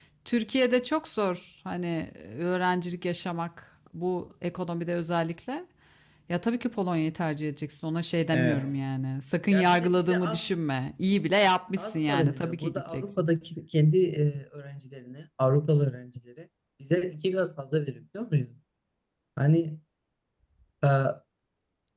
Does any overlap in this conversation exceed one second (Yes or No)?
Yes